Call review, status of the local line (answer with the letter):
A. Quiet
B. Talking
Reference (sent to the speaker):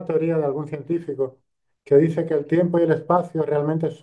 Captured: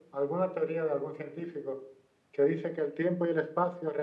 A